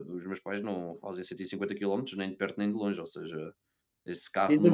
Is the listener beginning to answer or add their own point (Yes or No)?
Yes